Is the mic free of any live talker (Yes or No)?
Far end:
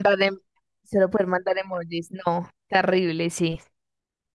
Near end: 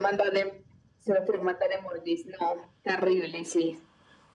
Yes